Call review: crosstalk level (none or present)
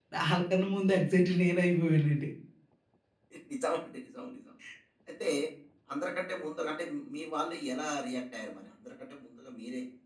none